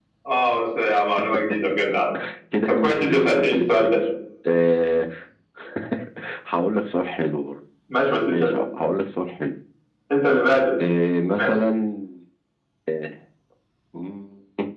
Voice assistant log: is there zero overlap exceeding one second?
No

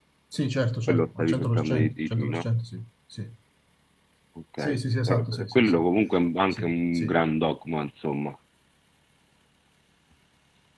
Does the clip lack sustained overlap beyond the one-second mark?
No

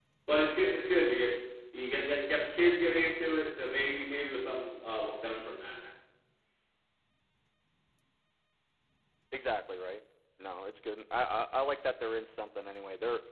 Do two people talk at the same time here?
No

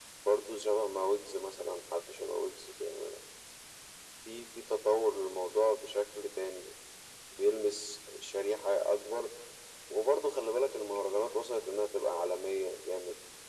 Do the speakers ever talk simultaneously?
No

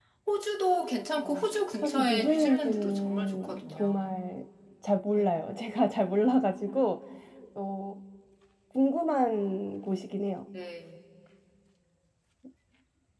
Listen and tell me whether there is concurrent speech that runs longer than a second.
Yes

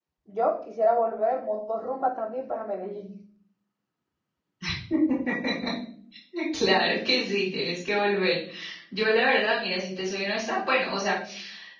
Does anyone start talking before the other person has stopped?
No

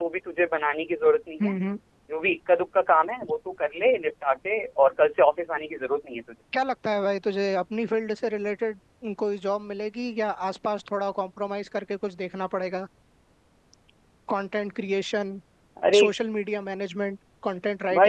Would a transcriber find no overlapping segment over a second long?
Yes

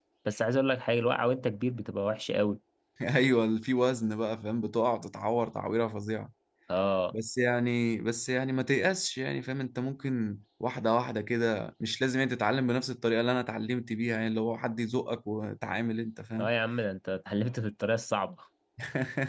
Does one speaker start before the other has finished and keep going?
No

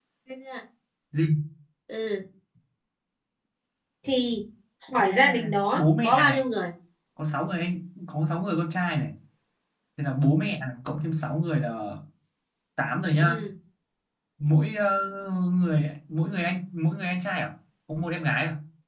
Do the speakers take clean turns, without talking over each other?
No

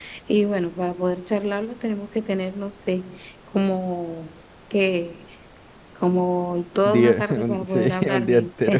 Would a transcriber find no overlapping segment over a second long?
No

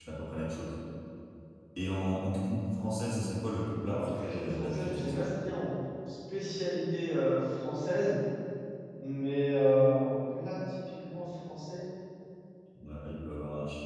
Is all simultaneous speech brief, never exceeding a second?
No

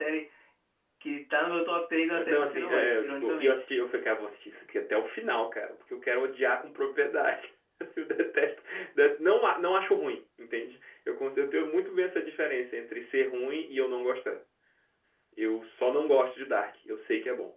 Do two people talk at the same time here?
Yes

